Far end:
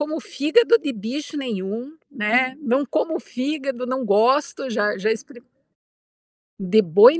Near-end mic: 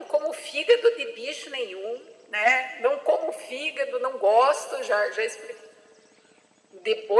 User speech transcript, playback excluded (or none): none